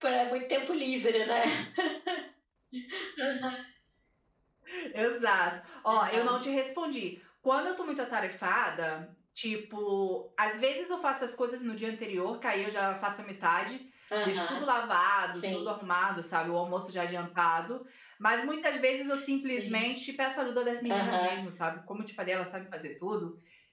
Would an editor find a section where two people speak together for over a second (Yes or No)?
No